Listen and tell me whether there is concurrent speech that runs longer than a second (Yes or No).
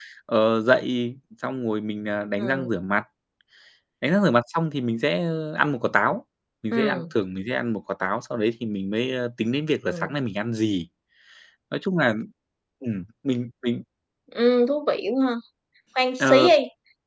No